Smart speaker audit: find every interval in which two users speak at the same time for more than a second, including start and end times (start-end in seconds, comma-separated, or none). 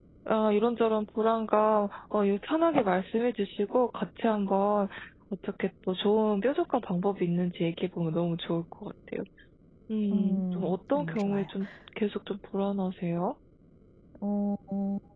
10.1-11.5